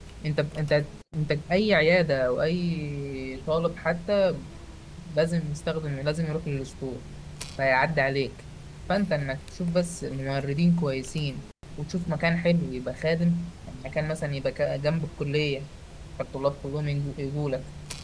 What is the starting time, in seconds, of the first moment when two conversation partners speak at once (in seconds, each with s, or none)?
none